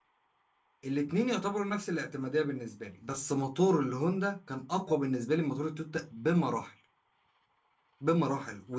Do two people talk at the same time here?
No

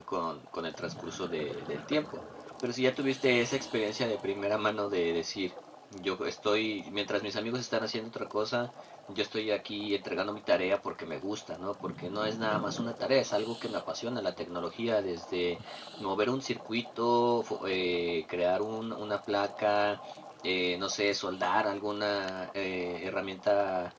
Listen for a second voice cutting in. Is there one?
No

